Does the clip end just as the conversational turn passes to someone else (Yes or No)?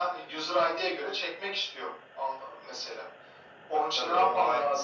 Yes